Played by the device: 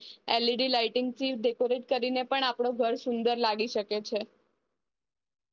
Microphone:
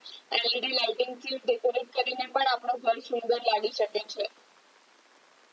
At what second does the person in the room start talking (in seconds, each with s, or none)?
none